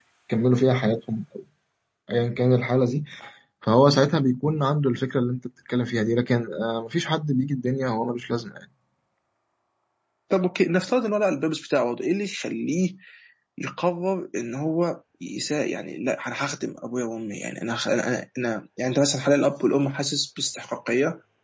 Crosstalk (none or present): none